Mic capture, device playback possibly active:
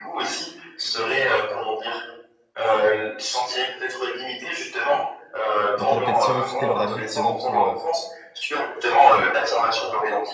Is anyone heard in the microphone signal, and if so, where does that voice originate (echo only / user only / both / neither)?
both